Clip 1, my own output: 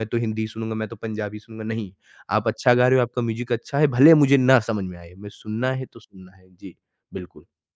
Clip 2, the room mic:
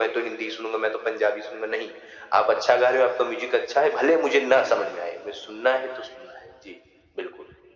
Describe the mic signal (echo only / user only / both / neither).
echo only